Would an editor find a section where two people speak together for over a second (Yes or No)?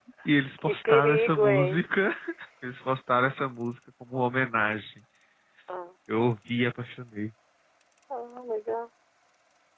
Yes